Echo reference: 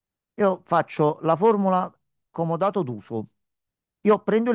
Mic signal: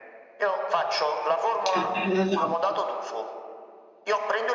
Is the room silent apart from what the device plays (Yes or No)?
No